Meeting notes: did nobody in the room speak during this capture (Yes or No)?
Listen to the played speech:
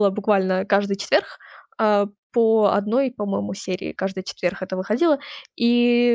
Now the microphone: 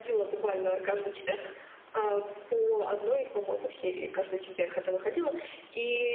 Yes